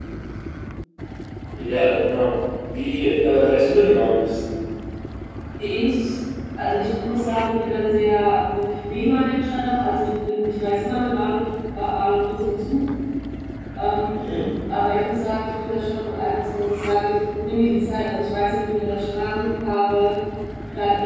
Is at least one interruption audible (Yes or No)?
No